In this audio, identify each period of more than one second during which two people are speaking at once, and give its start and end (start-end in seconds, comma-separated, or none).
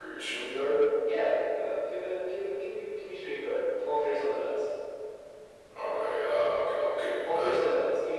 none